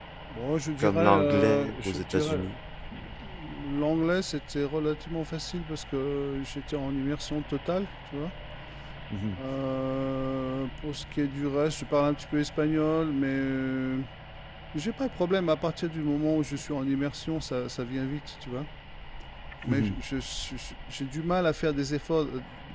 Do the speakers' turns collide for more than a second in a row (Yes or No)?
Yes